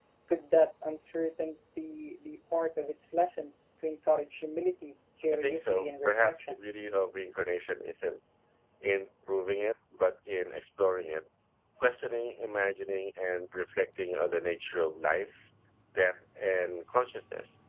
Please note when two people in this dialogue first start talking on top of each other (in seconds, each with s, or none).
5.3 s